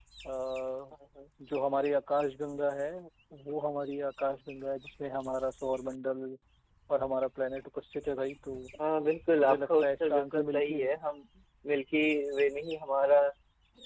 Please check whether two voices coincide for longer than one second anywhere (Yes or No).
Yes